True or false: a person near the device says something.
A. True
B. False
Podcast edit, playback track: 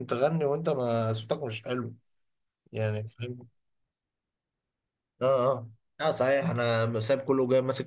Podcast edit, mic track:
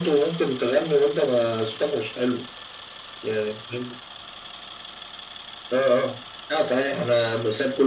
B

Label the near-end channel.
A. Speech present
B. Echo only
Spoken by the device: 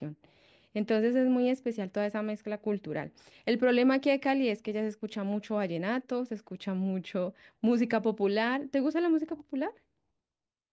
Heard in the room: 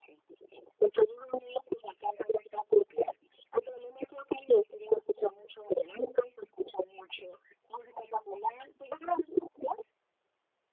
B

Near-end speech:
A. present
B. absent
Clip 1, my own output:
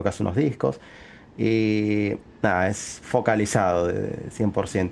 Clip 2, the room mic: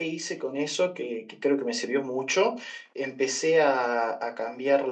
A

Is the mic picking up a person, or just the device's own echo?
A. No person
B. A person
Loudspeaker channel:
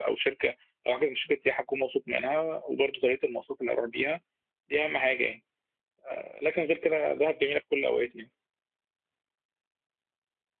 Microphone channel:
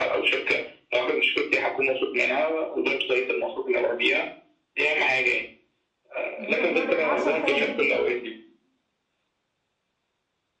B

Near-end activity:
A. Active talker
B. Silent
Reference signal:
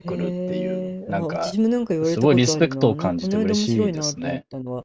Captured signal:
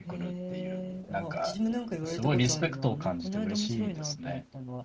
B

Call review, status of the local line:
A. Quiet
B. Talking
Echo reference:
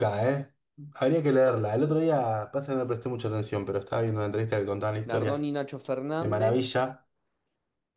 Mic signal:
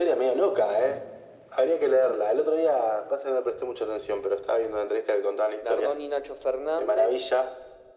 A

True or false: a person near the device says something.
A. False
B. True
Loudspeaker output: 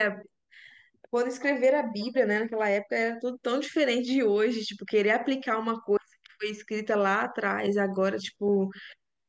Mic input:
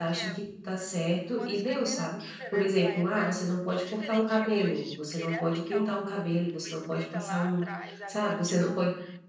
B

